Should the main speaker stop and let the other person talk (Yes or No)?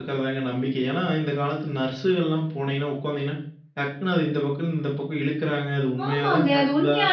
Yes